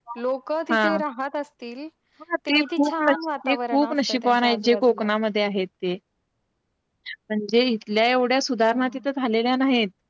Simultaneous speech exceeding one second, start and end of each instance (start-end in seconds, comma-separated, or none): 2.5-5.1